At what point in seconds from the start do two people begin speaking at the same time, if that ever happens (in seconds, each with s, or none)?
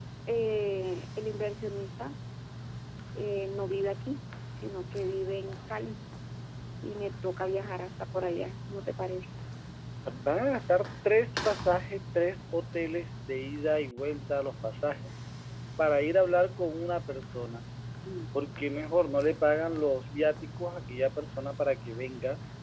none